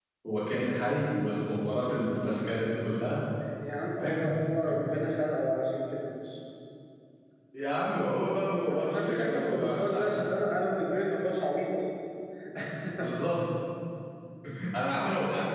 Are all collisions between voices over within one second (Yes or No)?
No